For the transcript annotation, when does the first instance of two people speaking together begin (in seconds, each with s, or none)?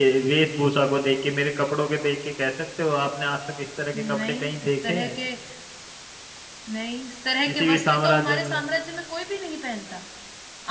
3.9 s